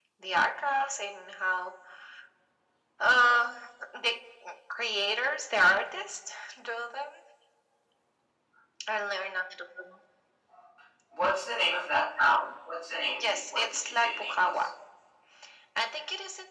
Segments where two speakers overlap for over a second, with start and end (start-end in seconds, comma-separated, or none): 13.2-14.7